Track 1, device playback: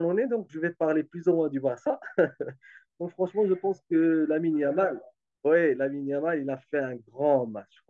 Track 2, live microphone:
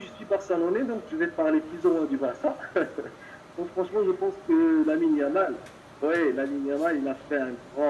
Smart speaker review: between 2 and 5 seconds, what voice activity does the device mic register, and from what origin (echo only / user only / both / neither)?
echo only